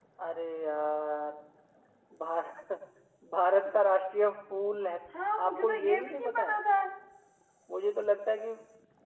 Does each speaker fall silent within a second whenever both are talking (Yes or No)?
No